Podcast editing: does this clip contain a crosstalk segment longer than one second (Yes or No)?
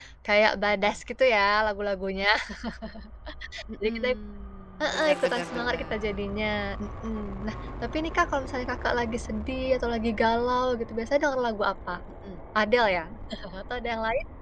Yes